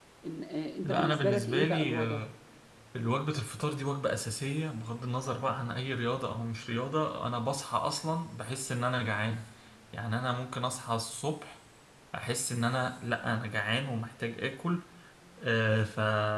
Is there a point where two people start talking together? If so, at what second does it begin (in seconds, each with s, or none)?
0.8 s